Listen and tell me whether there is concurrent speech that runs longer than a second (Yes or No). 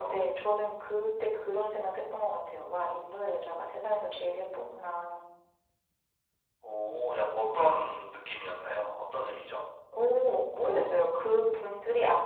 No